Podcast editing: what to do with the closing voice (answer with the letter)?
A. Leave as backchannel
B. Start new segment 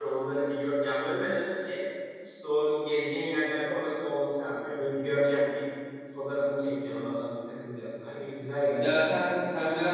B